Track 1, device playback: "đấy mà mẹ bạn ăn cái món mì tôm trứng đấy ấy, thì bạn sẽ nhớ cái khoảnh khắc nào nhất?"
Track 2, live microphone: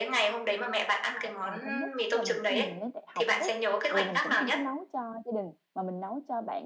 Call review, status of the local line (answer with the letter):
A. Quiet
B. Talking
B